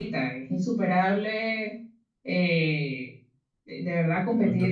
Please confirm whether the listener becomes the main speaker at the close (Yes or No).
No